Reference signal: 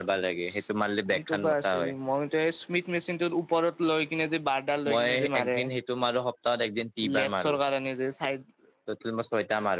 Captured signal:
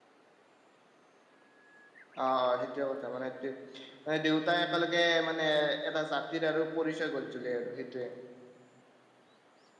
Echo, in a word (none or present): none